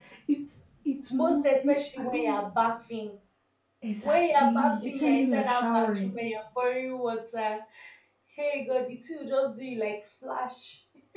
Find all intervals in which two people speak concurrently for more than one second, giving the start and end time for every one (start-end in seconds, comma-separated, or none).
1.1-2.4, 4.0-6.1